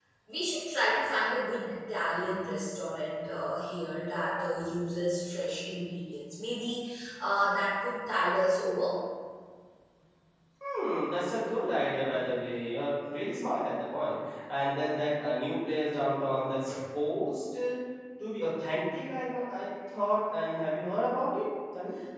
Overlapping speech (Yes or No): No